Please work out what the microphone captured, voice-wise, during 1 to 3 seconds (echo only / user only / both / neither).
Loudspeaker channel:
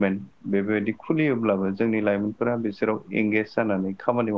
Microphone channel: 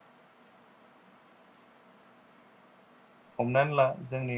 neither